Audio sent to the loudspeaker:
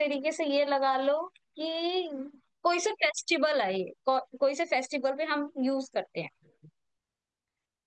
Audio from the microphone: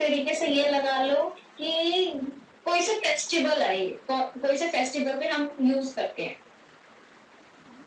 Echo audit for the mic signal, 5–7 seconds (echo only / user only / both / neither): echo only